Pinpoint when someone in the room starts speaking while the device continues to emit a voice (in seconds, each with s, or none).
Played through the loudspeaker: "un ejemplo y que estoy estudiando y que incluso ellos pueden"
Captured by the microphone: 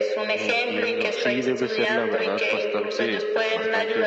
0.3 s